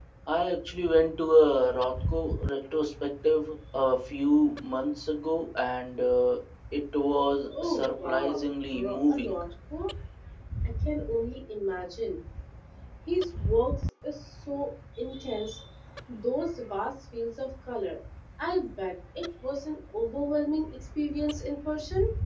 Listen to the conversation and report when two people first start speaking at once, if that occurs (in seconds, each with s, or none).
7.5 s